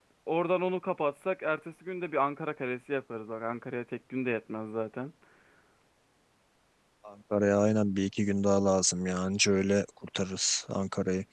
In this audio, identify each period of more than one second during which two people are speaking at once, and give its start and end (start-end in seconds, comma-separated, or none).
none